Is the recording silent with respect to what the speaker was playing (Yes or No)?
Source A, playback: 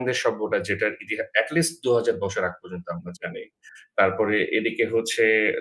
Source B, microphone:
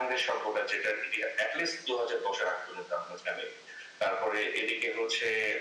No